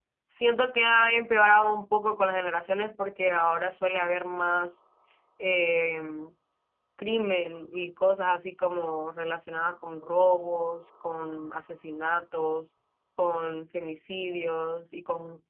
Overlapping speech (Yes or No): No